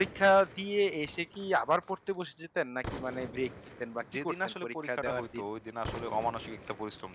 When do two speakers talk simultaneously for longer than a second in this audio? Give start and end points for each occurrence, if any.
4.1-5.4

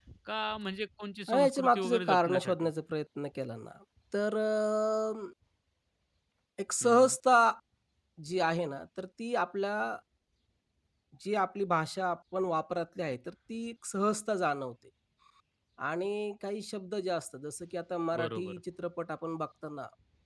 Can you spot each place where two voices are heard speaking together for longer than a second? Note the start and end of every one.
1.3-2.7

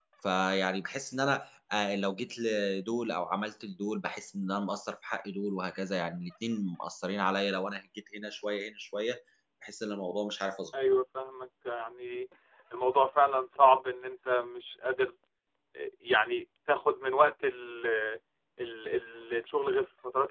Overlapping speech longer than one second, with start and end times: none

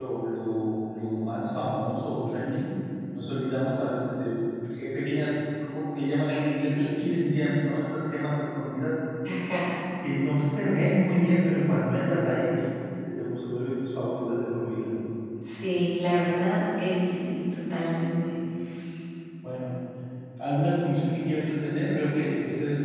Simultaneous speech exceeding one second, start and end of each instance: none

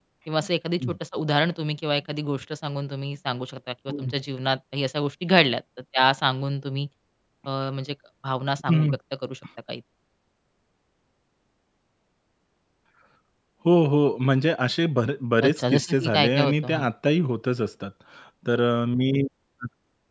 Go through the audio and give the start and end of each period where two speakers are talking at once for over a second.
15.4-16.9

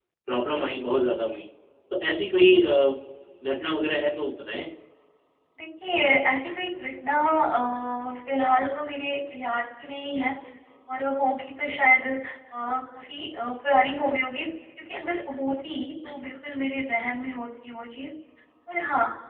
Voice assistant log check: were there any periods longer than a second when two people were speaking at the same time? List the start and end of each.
none

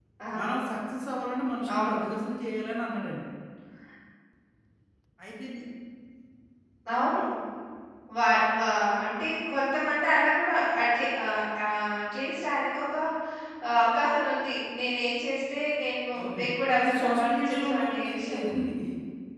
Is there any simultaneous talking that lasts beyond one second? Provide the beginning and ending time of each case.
16.9-18.5

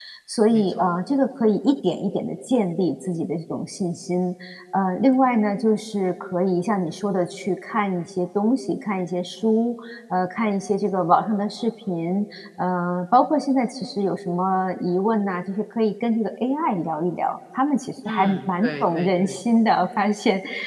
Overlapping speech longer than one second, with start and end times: 18.1-19.4

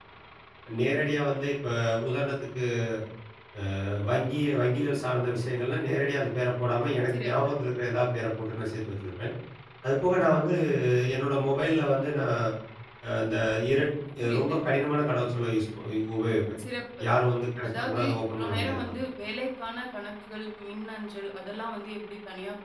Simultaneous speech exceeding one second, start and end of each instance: 17.6-18.9

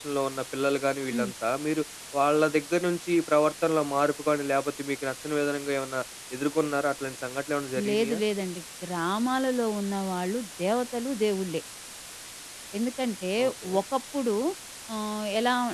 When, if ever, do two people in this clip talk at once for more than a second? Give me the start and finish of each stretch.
none

